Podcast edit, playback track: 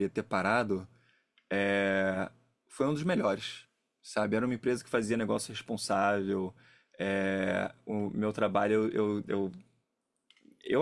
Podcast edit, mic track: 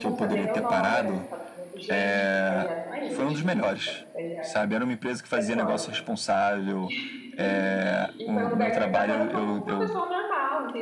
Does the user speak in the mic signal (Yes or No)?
Yes